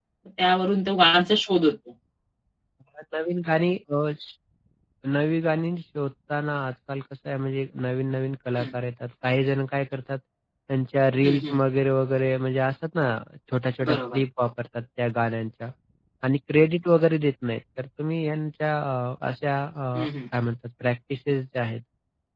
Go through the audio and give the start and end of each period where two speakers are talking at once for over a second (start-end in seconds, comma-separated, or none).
none